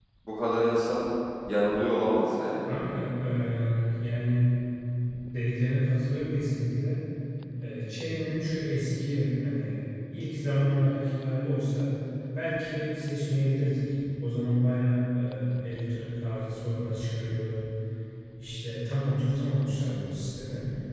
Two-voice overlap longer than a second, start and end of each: none

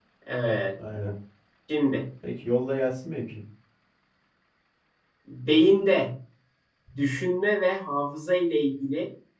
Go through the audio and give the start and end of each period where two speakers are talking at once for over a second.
none

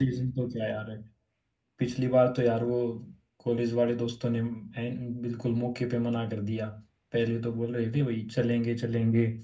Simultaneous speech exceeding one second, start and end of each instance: none

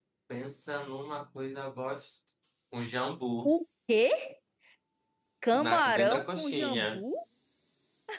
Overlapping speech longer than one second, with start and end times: 5.5-7.0

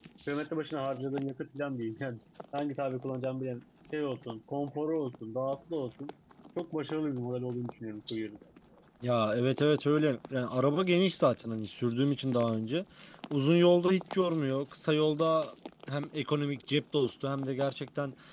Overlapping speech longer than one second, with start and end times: none

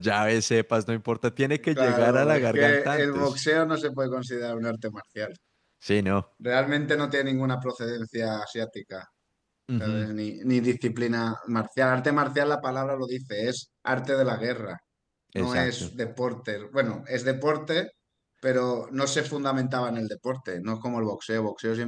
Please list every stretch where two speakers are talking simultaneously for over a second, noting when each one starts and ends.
1.8-3.4

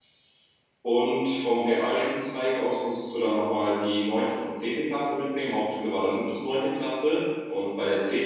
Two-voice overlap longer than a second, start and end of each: none

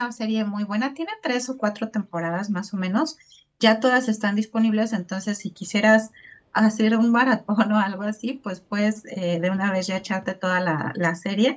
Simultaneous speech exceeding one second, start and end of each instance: none

